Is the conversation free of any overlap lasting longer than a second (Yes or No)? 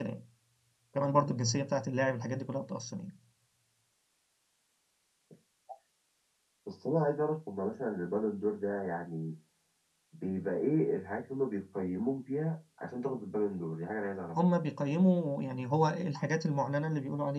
Yes